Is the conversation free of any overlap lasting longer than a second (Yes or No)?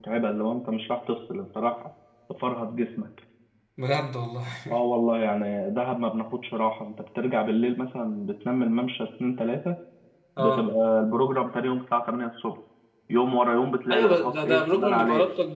No